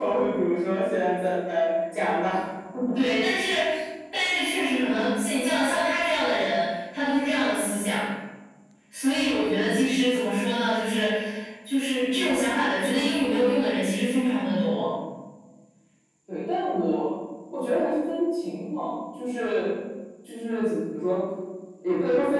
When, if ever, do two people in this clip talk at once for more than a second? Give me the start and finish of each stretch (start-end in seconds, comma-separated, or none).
none